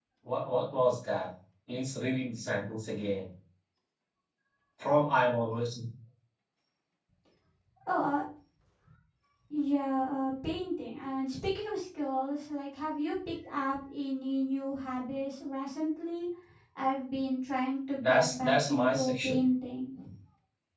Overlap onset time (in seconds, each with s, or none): 18.0 s